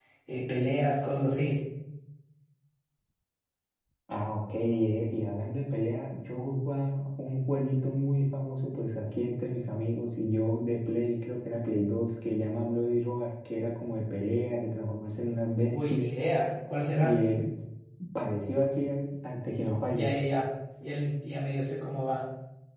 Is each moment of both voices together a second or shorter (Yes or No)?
Yes